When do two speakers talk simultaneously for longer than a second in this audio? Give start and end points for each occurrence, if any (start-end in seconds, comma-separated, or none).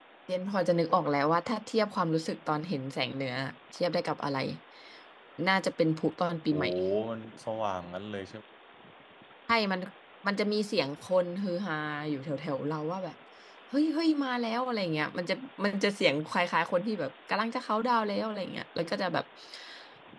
none